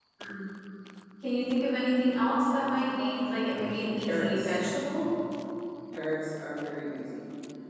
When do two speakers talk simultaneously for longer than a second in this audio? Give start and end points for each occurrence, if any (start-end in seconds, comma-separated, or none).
2.9-4.6